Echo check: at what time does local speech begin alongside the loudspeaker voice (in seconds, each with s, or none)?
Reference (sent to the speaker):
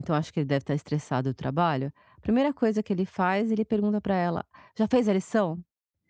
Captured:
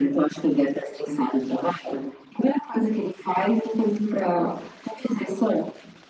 none